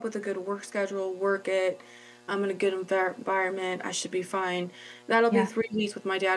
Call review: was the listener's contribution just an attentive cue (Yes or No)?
Yes